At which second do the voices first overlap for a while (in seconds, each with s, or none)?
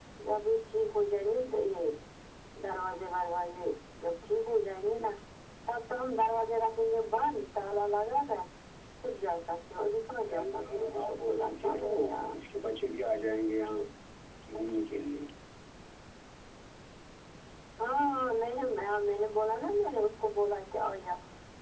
10.3 s